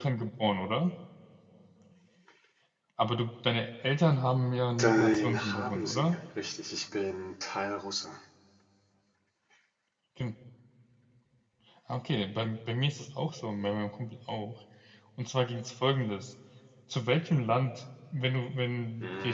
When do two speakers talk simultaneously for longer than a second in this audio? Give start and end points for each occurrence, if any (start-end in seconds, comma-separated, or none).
4.8-6.2